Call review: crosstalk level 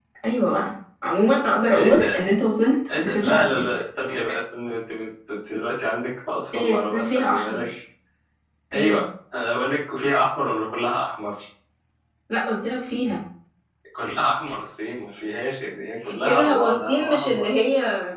present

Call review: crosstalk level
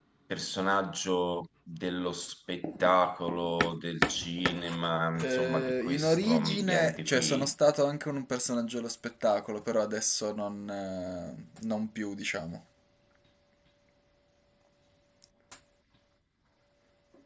present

